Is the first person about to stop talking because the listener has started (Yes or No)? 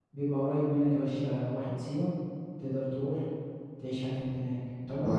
Yes